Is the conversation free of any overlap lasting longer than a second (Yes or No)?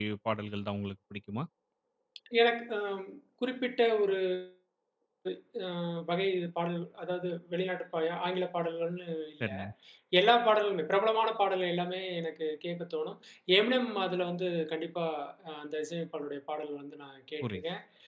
Yes